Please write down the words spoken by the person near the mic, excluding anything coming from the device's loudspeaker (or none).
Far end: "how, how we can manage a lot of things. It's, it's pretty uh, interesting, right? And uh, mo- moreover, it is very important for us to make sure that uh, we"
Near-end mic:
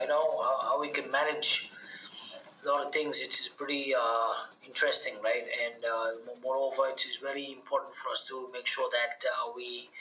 none